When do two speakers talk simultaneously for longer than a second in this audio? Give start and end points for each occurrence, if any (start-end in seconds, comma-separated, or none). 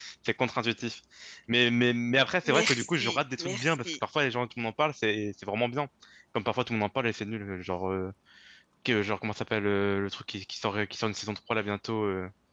2.4-3.9